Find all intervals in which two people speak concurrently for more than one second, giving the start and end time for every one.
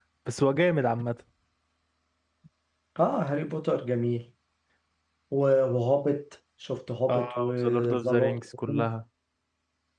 7.1-8.4

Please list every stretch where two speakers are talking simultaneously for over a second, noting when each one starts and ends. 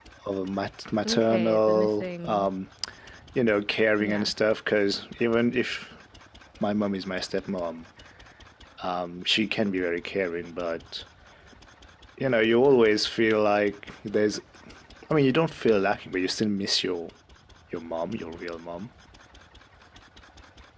1.1-2.5

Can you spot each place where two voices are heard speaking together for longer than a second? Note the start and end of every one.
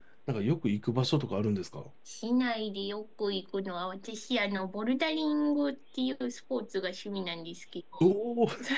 none

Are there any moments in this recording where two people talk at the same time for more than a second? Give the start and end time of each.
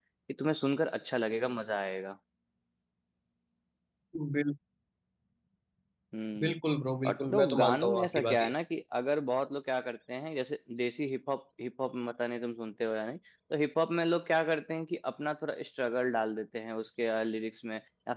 7.1-8.5

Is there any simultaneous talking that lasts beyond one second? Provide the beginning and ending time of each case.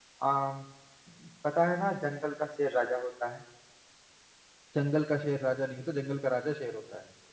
none

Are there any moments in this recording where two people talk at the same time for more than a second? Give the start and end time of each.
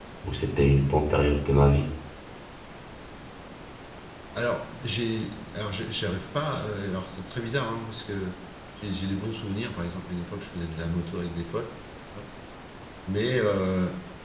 none

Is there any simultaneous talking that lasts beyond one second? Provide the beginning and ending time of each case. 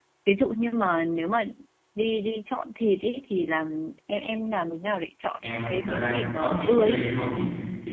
5.4-7.0

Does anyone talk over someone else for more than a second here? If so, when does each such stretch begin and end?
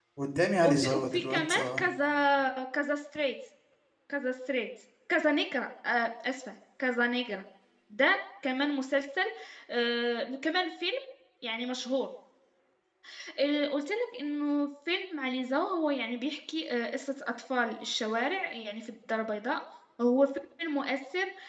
0.6-1.8

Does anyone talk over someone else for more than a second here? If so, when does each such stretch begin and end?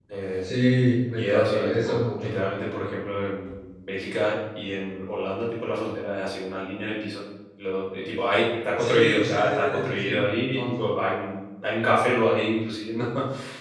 1.2-2.4, 8.8-10.2

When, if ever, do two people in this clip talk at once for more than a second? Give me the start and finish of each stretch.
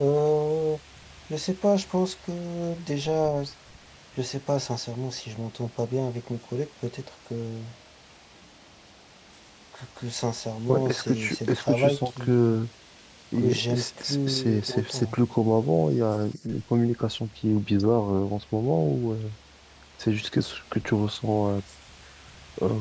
10.7-12.6, 13.3-15.2

